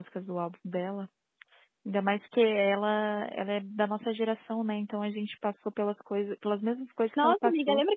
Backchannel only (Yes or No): No